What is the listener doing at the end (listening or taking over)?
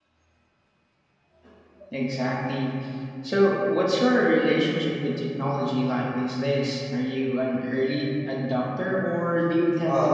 taking over